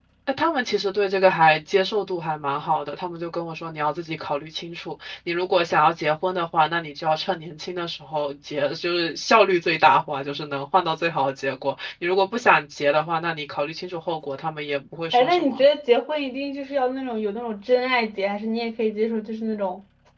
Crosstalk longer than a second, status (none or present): none